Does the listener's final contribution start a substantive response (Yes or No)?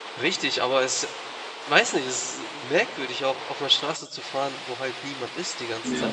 Yes